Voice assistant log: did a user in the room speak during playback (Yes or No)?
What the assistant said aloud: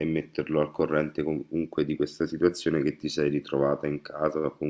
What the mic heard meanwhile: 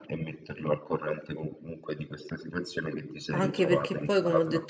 Yes